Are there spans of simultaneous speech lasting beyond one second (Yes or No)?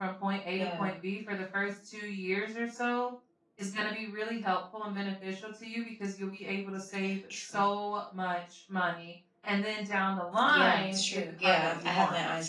Yes